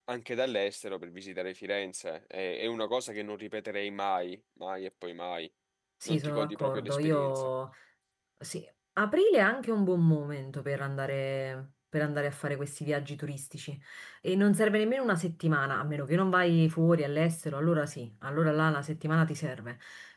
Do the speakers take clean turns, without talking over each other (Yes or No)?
No